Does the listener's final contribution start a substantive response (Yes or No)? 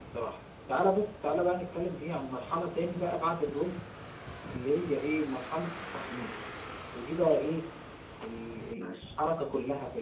No